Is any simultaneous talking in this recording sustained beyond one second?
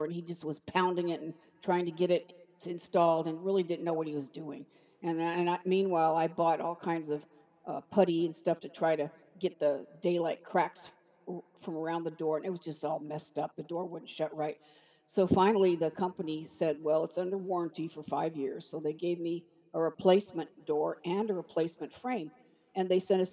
No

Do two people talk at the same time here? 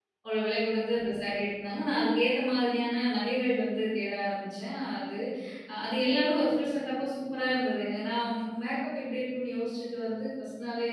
No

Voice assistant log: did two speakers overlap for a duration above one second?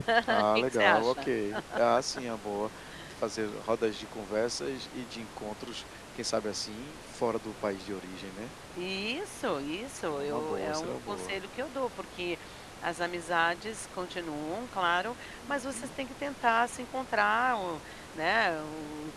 Yes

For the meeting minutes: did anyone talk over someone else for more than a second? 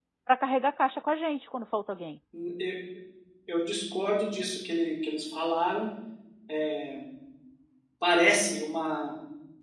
No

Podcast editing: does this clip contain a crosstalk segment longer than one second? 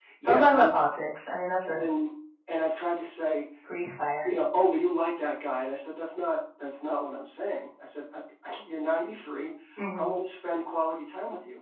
No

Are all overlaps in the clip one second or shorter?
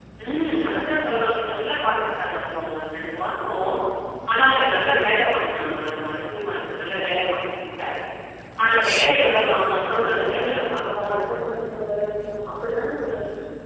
No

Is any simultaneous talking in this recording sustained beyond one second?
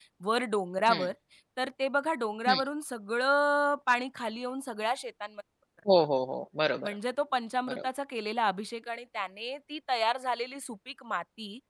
No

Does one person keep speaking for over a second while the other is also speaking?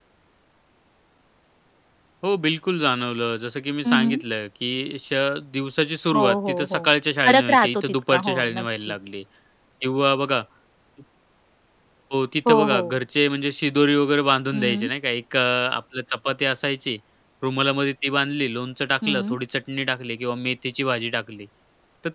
Yes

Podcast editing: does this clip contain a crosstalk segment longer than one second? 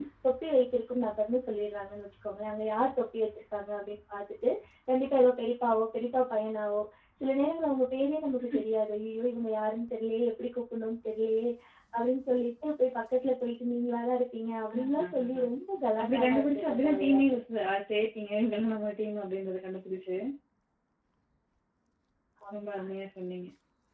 Yes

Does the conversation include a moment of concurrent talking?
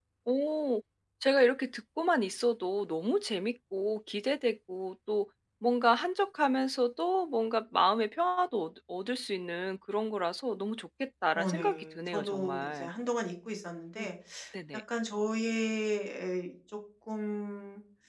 Yes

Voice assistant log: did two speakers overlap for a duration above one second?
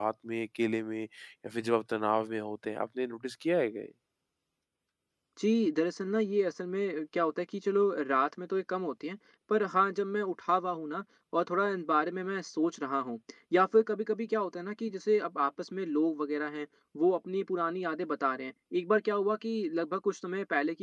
No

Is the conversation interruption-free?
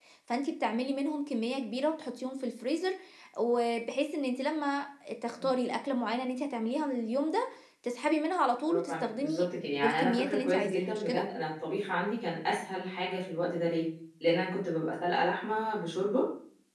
No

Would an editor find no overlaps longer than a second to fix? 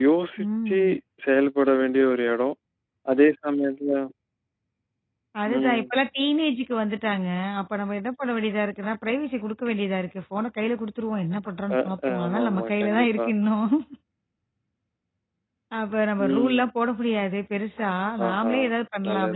No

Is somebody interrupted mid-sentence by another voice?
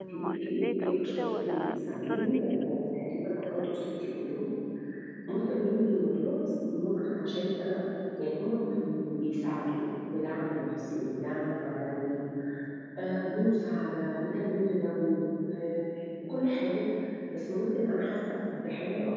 Yes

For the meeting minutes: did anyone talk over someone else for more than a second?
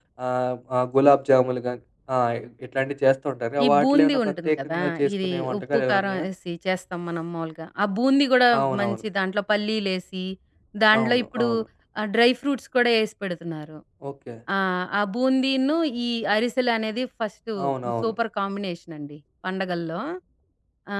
Yes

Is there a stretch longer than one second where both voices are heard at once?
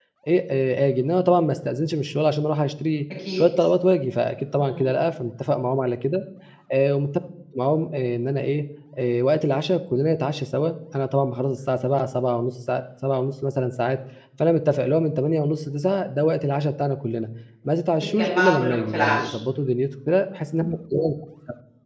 Yes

